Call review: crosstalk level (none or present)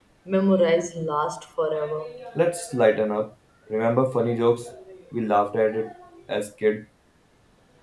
none